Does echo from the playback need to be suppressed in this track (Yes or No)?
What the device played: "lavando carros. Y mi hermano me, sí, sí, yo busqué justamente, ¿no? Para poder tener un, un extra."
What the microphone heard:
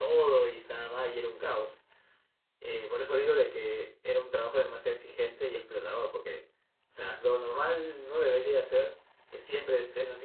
No